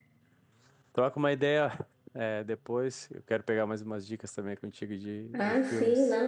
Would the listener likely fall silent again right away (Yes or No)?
No